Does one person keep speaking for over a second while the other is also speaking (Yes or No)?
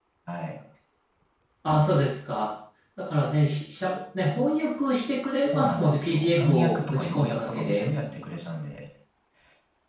Yes